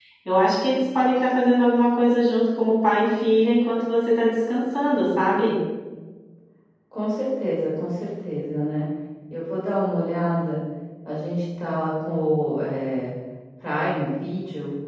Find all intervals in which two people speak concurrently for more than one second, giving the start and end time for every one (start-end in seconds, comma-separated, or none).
none